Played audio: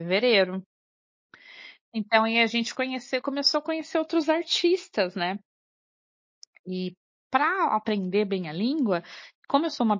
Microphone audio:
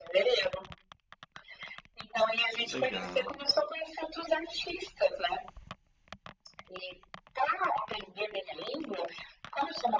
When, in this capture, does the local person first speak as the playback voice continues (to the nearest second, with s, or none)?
3 s